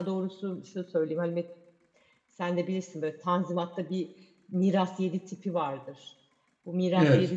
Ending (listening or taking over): listening